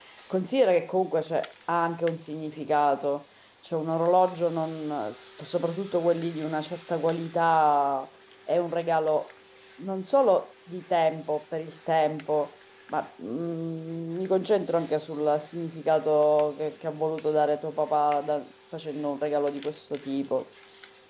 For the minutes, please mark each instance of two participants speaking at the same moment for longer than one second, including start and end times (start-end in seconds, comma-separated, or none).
none